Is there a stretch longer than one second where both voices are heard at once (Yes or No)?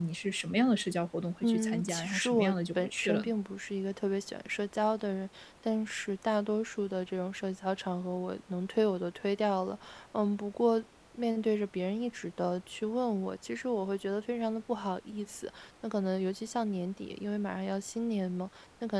Yes